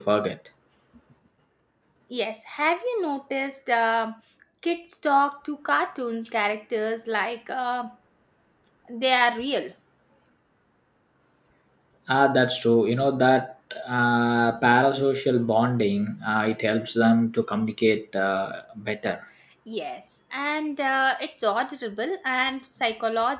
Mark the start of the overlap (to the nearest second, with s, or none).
none